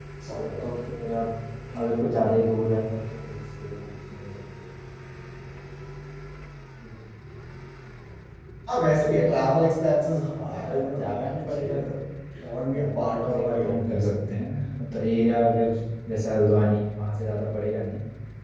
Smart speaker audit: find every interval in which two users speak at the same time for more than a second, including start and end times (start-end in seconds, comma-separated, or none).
10.4-11.7, 12.4-13.9